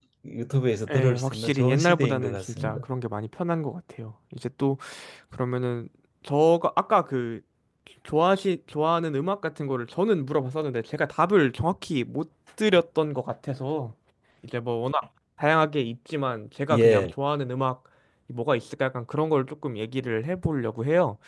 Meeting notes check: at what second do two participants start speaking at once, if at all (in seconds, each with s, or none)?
0.9 s